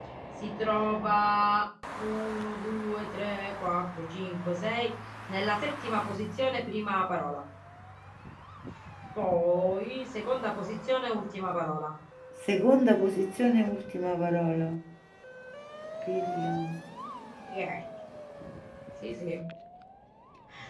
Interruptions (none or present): none